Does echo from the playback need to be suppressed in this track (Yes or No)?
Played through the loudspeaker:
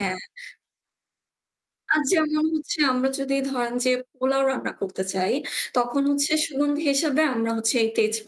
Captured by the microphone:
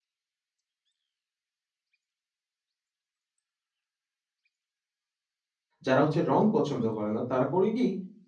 No